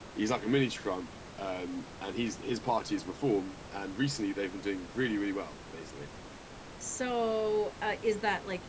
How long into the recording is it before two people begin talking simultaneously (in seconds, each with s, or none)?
none